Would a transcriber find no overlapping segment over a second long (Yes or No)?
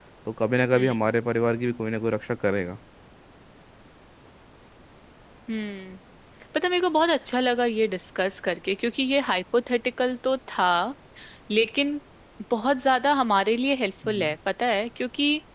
Yes